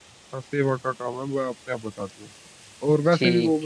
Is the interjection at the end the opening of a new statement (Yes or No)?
No